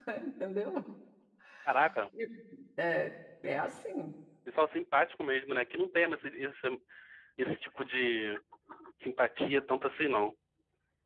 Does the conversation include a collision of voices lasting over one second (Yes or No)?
No